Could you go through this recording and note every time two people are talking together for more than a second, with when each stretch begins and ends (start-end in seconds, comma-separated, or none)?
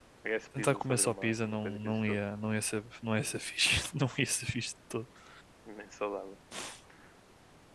0.6-2.0